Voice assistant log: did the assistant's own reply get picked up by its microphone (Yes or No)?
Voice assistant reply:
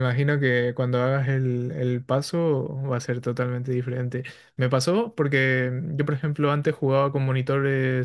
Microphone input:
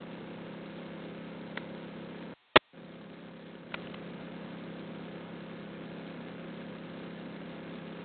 No